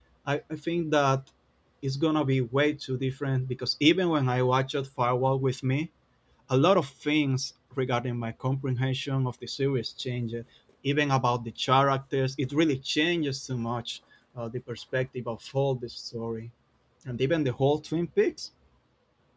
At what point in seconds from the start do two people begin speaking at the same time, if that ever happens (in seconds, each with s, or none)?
none